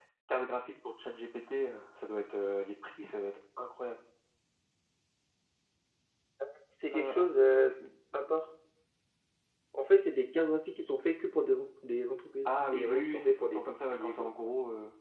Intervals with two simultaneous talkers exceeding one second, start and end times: 12.4-14.3

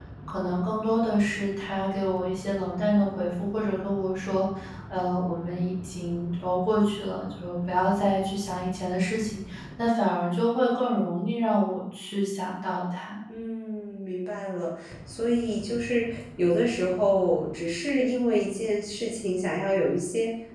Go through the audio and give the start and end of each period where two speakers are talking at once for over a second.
none

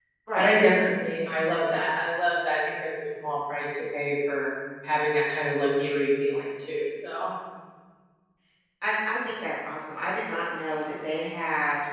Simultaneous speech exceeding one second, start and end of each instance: none

